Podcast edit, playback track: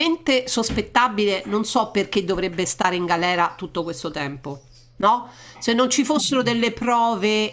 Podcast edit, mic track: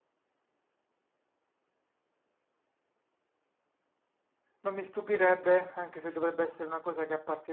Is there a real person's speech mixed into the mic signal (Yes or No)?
Yes